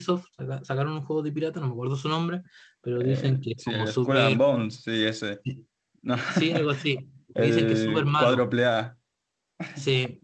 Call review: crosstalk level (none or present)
present